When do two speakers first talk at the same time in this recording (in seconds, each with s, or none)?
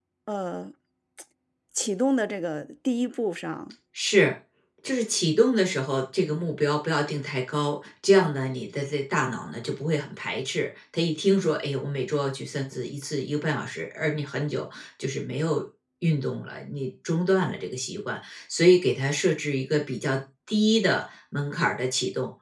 none